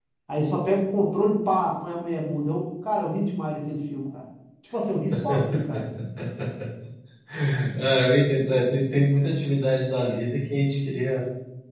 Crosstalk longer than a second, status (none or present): none